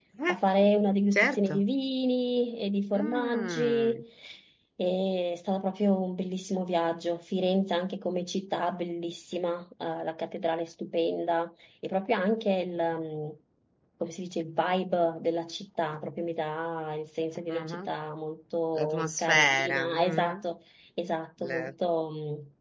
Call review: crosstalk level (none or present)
present